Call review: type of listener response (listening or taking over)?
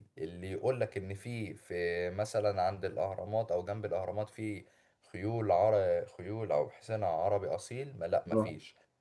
listening